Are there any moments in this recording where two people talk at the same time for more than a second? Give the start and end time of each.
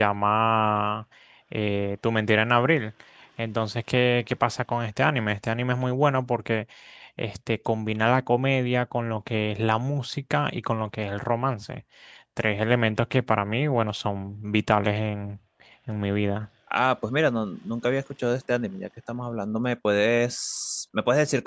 none

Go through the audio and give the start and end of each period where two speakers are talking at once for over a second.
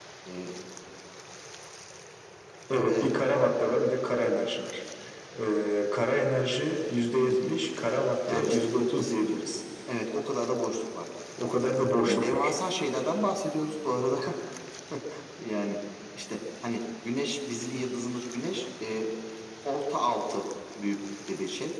8.3-9.6

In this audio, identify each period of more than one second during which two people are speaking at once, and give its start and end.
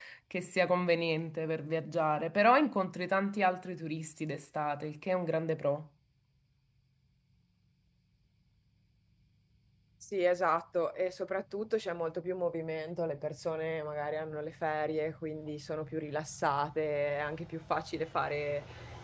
none

